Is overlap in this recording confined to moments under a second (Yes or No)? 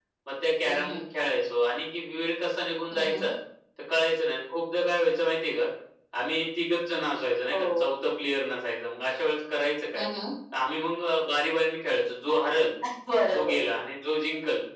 Yes